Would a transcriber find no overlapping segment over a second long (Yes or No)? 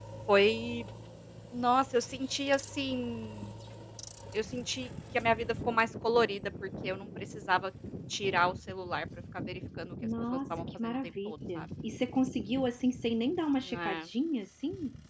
No